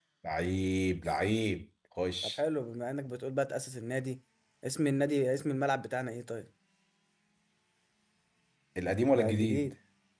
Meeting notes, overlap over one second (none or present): none